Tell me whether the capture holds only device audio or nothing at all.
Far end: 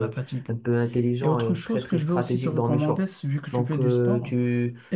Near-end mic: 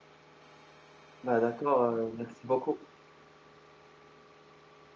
No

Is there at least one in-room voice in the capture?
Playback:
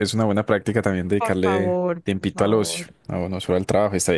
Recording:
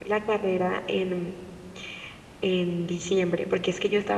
Yes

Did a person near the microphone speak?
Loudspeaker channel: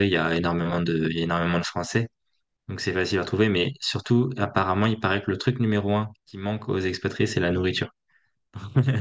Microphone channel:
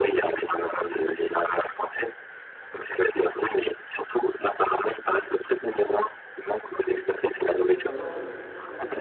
Yes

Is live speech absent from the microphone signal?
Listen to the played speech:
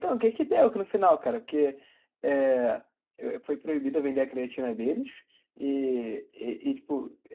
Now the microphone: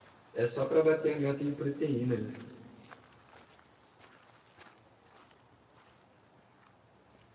No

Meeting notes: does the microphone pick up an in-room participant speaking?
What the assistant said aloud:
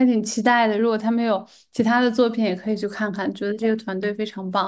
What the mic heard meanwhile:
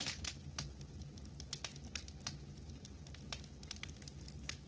No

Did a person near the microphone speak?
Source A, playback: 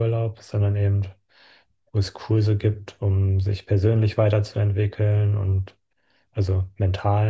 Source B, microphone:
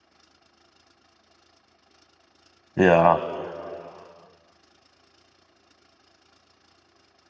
Yes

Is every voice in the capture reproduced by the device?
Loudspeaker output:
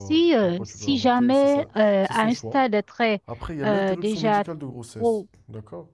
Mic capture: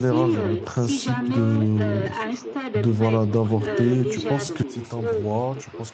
No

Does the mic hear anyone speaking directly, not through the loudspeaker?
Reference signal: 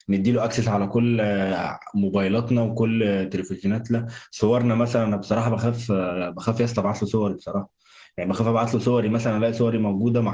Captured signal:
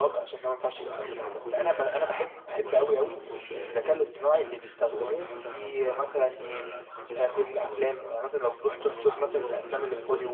Yes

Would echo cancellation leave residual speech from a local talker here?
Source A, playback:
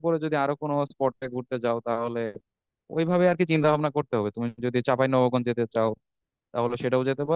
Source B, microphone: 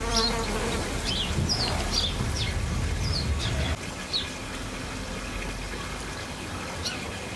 No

